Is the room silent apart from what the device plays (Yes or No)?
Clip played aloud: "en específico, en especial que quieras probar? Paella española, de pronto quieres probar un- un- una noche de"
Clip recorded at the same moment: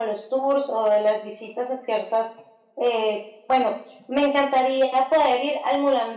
No